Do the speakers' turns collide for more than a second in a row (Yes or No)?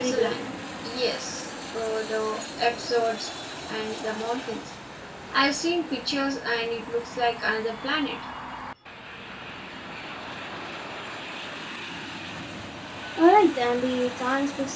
No